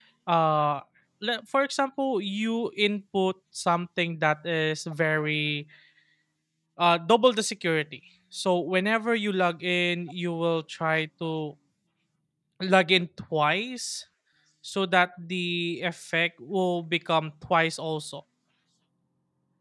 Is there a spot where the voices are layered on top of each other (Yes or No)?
No